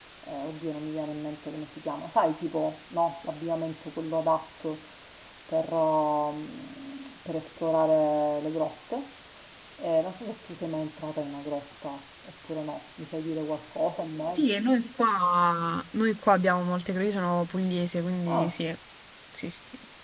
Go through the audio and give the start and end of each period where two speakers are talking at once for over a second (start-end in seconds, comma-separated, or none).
none